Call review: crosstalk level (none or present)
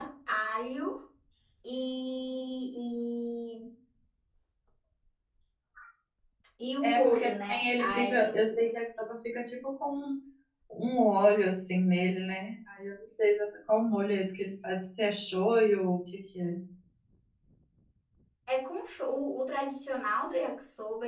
present